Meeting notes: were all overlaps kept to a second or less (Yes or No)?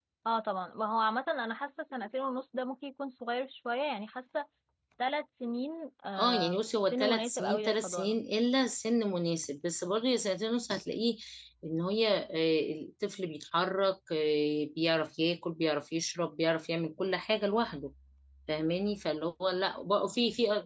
No